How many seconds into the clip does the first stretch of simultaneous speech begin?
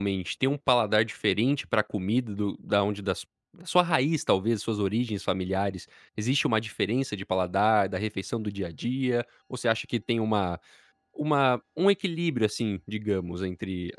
none

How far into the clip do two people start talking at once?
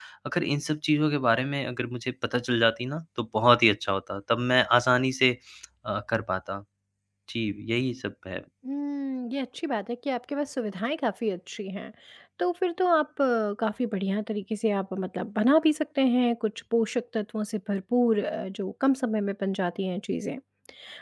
none

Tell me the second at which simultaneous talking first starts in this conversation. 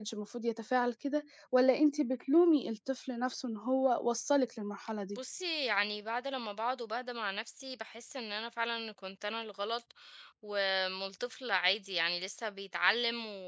none

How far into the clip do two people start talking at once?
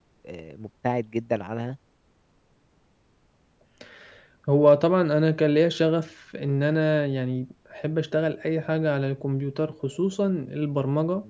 none

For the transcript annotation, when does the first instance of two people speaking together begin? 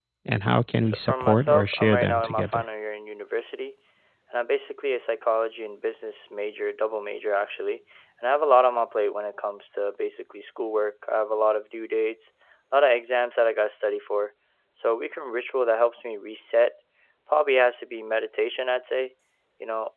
1 s

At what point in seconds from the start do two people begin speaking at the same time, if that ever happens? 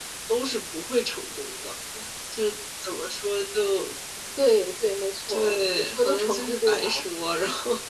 5 s

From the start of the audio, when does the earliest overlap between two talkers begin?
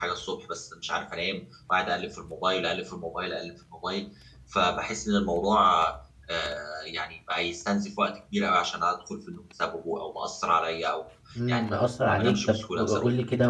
11 s

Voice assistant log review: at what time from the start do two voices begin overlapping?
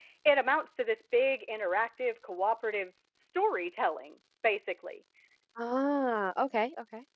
none

